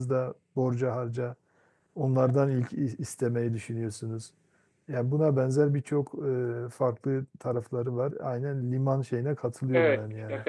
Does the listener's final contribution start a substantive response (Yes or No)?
Yes